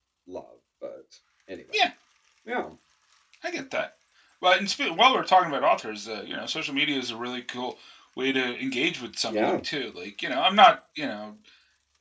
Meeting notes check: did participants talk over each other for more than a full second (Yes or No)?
No